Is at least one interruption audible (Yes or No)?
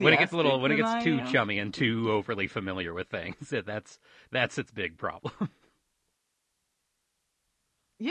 Yes